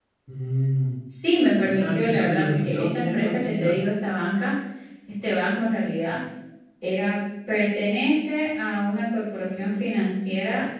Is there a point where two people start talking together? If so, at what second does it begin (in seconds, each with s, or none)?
1.6 s